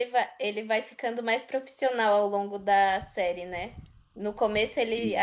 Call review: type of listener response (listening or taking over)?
listening